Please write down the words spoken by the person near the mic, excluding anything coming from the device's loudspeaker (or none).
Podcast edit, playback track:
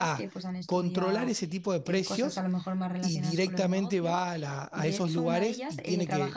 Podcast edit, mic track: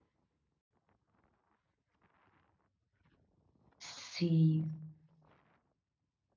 sí.